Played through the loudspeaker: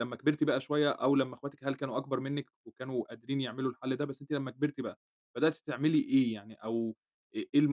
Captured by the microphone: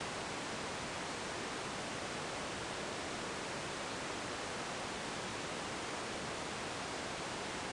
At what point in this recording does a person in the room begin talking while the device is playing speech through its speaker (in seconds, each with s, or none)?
none